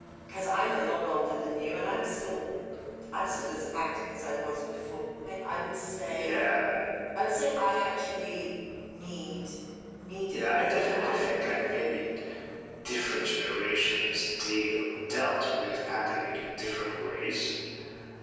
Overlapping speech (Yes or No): Yes